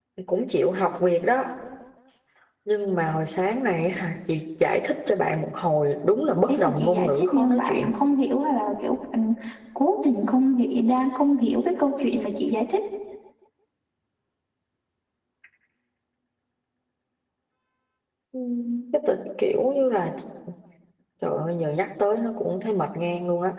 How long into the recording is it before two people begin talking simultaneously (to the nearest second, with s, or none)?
6 s